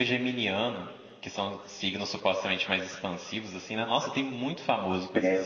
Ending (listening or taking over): taking over